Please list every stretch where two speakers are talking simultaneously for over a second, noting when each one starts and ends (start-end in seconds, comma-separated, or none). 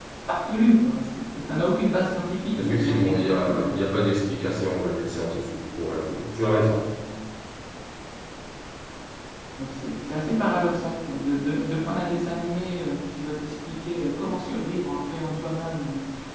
2.6-3.8